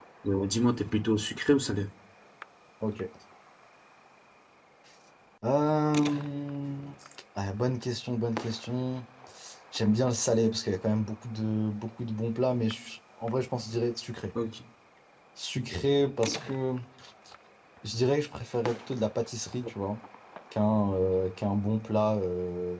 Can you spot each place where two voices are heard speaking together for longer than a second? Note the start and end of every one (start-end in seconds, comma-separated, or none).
none